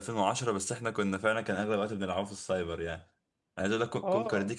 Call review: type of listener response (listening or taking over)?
listening